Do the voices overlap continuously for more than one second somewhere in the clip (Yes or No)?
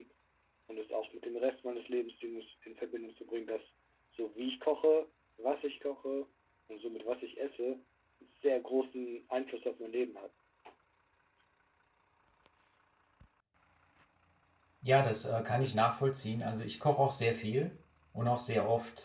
No